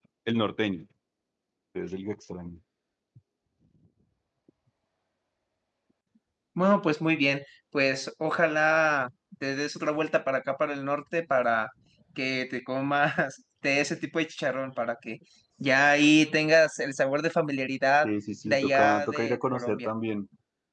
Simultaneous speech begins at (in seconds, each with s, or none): 18.5 s